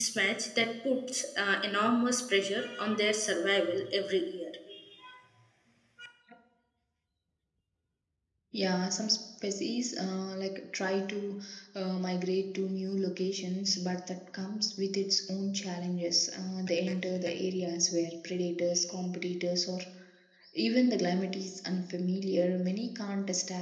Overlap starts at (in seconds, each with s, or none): none